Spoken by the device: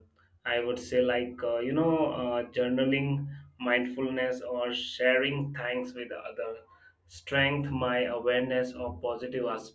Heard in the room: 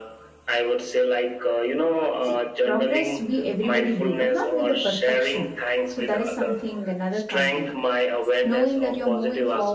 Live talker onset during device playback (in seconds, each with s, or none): 2.2 s